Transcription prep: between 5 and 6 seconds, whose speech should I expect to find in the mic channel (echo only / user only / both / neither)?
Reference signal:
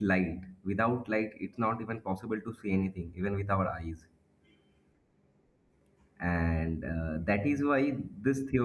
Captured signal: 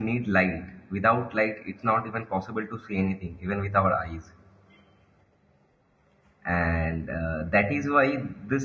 neither